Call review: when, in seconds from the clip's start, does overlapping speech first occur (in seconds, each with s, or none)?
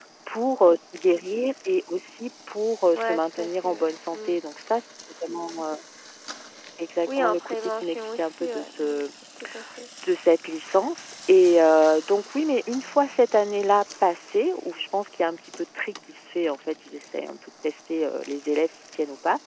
2.9 s